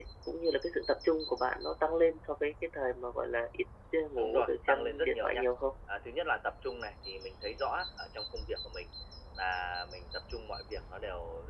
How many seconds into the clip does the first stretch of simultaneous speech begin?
4.2 s

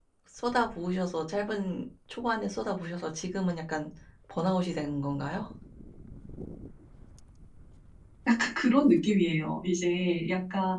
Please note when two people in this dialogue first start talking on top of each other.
none

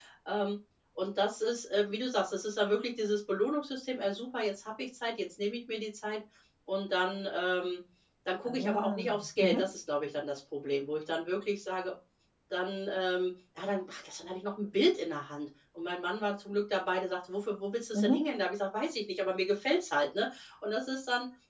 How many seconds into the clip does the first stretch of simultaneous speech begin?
8.5 s

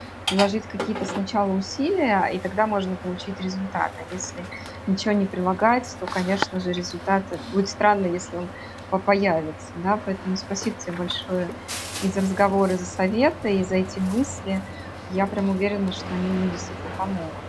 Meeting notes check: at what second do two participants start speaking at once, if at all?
none

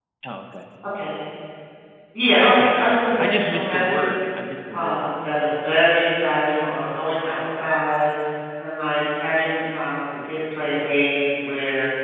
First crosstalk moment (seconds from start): 2.4 s

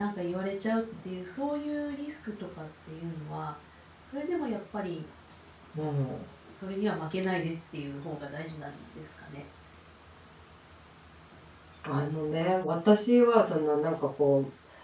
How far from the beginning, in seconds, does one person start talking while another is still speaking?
none

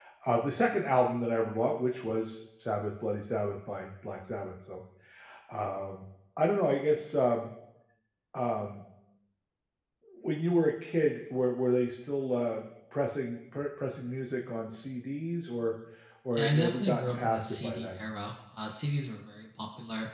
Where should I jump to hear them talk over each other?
16.4 s

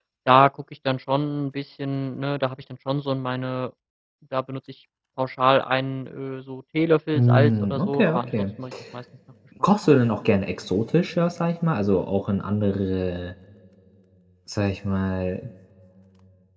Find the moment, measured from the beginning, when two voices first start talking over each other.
7.1 s

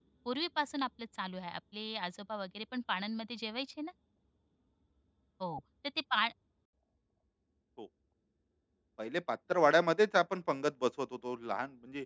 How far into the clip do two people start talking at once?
none

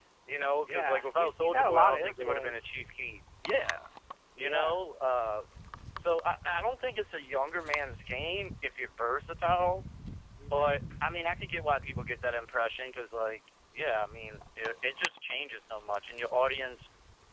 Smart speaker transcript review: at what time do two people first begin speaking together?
0.7 s

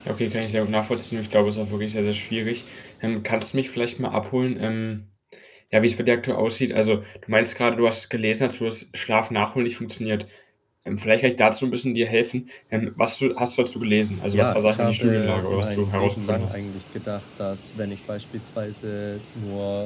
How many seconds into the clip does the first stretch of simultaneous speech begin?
14.3 s

